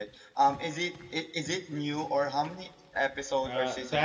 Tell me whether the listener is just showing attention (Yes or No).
No